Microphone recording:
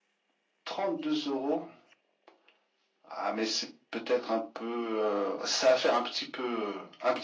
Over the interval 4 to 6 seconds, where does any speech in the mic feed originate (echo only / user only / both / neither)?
echo only